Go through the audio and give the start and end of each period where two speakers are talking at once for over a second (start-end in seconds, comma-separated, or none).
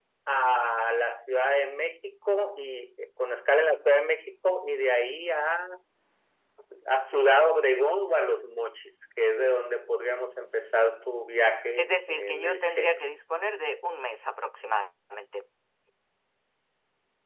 11.8-13.0